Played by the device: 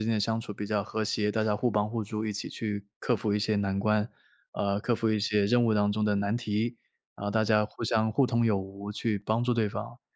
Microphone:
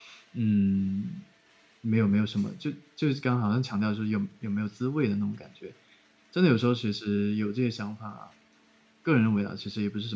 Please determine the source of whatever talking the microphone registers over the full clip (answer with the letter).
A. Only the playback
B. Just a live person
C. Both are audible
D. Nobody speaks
B